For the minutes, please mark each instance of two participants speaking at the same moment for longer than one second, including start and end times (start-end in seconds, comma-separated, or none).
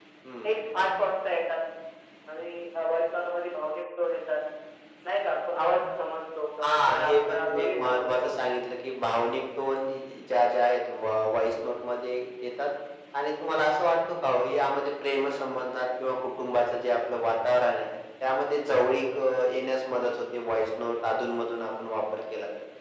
6.6-8.3